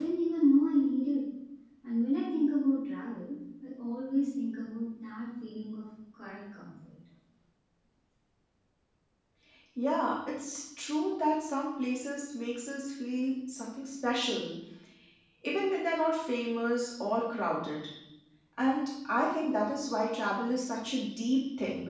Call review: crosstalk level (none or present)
none